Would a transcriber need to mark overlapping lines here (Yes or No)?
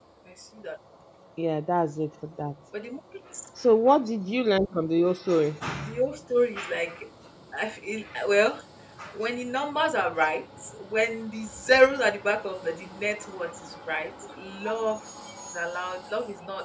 No